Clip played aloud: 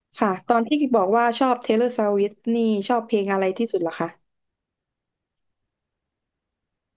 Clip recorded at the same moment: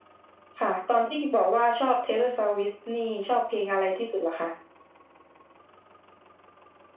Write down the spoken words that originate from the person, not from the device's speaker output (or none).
none